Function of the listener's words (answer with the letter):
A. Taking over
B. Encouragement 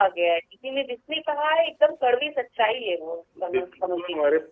A